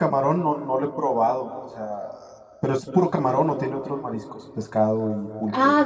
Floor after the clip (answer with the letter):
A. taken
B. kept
A